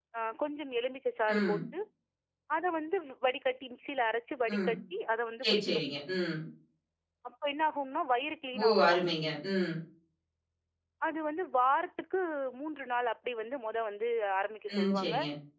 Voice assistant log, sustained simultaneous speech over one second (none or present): none